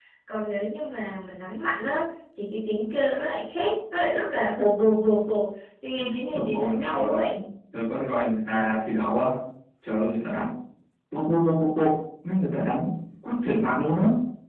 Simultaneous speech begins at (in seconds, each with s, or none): 6.0 s